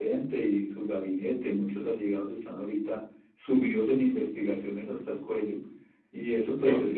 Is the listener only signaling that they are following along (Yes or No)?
Yes